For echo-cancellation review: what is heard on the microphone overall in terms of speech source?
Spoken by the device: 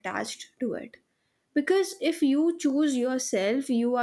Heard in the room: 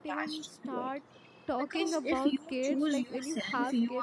both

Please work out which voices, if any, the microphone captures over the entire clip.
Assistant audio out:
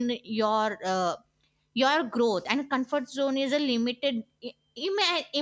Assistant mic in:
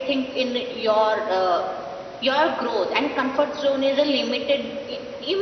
echo only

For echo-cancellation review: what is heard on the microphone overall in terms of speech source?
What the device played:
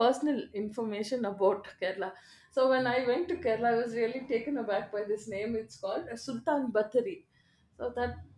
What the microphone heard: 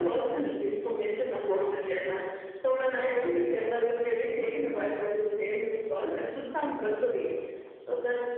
echo only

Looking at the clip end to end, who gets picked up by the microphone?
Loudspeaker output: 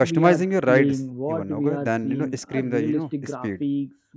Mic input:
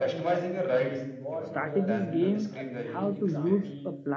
both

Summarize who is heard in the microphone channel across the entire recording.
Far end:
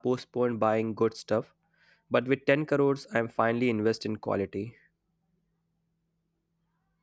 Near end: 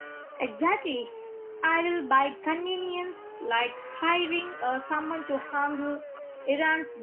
user only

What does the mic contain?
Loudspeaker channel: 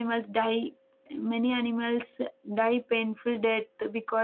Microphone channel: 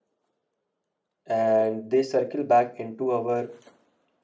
user only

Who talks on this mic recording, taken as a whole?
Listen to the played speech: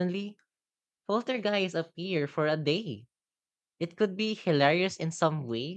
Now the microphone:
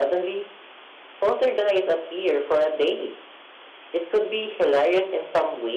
echo only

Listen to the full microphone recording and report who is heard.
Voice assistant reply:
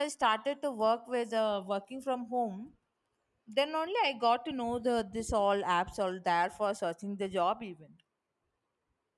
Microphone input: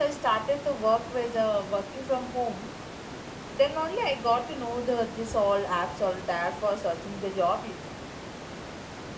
echo only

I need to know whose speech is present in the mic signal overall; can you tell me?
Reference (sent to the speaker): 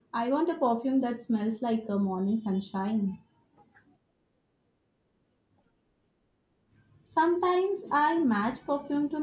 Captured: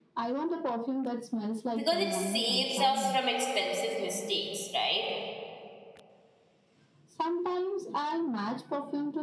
both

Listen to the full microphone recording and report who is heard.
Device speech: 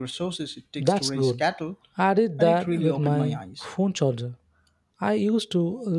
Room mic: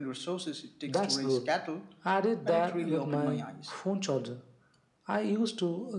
echo only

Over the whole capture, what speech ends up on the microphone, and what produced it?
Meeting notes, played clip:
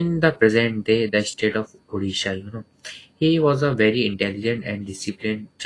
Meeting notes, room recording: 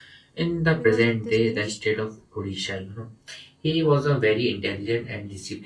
both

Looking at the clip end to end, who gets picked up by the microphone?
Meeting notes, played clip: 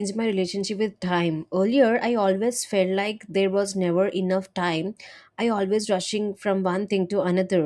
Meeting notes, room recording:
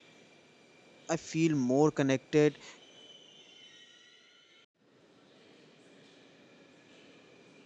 user only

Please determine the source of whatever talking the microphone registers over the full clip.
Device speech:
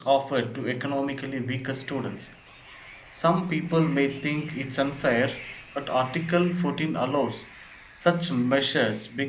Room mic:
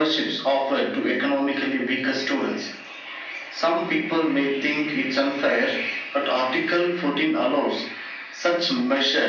echo only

